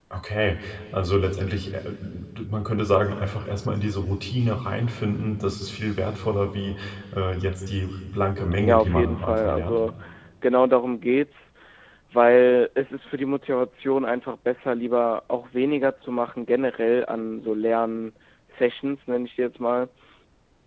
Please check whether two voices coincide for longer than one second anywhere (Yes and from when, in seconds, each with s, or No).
Yes, from 8.5 s